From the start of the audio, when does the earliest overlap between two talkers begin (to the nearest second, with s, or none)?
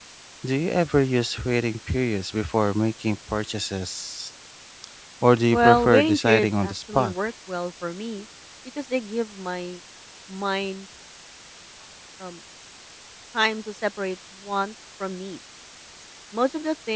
6 s